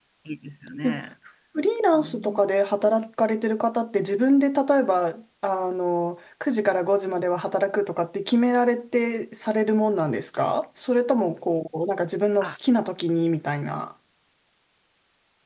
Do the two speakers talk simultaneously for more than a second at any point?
No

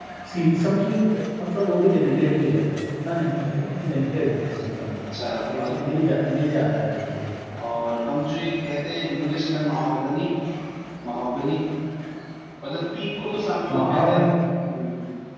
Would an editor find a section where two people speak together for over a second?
No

